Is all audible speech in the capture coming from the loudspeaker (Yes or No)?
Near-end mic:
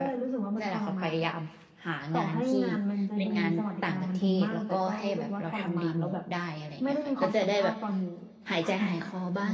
No